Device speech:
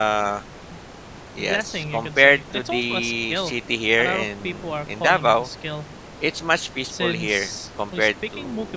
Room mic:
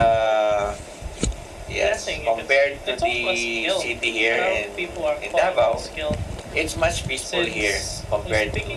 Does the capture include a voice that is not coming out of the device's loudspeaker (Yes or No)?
No